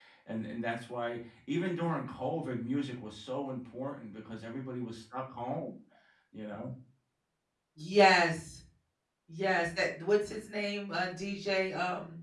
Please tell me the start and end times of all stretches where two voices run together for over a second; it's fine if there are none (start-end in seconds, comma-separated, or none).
none